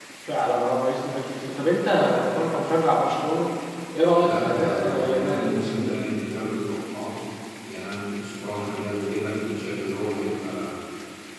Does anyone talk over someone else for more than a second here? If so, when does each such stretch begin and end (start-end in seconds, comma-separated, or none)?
4.2-5.9